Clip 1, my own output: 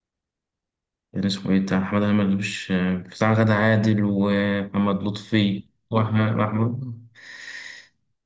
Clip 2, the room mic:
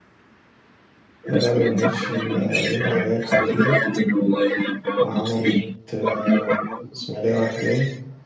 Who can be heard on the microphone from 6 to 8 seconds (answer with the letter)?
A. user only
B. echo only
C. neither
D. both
D